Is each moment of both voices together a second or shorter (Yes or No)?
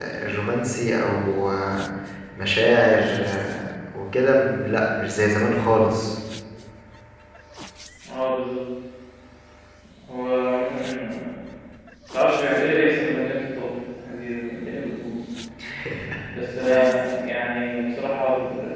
Yes